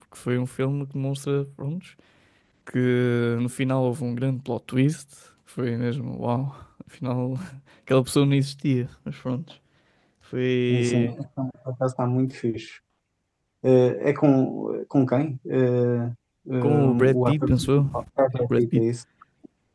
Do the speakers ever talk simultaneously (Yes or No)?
Yes